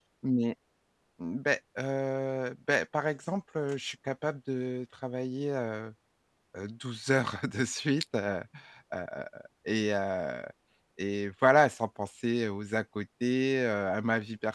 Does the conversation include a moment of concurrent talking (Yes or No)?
No